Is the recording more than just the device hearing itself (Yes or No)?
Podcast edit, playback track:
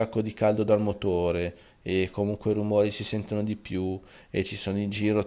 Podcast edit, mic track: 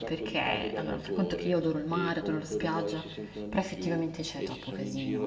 Yes